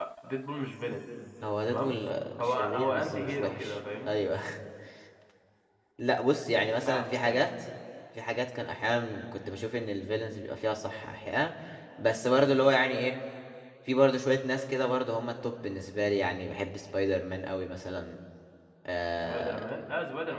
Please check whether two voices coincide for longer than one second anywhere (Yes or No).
Yes